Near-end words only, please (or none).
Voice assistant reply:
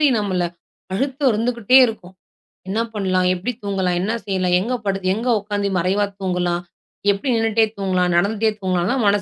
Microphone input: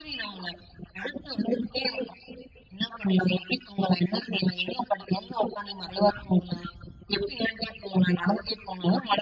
none